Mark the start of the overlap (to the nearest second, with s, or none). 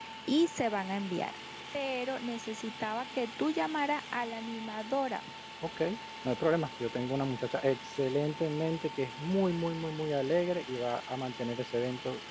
none